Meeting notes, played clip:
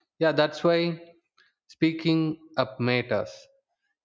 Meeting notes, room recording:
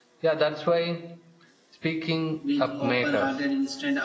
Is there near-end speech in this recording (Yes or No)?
Yes